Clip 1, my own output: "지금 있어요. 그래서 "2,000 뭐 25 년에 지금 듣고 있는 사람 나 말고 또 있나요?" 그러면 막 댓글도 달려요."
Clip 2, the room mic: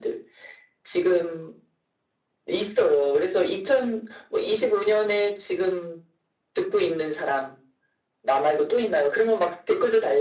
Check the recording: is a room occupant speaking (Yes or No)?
No